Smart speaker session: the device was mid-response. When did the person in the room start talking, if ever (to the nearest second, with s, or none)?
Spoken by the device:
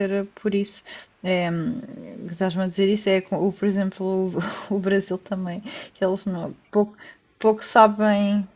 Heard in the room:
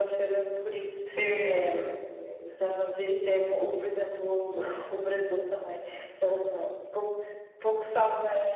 1 s